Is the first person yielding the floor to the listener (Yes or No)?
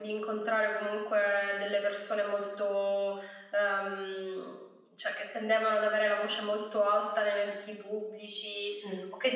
No